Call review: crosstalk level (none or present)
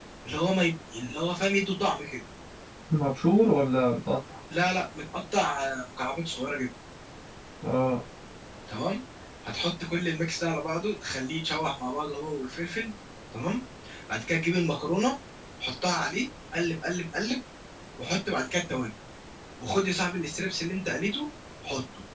none